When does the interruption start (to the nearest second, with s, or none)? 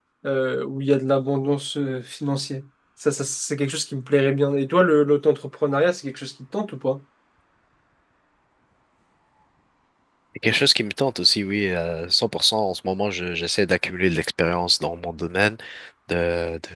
none